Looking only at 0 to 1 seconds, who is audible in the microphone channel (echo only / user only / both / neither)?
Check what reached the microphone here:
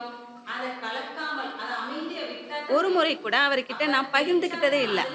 echo only